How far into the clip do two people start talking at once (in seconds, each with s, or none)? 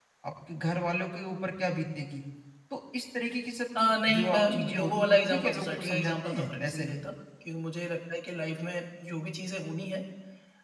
3.8 s